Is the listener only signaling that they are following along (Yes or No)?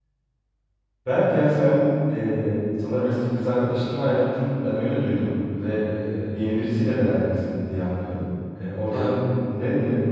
Yes